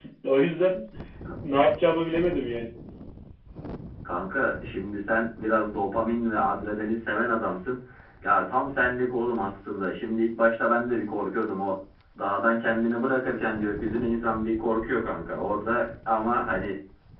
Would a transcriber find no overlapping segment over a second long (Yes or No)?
Yes